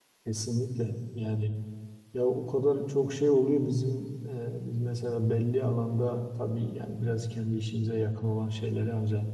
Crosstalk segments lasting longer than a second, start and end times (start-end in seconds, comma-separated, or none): none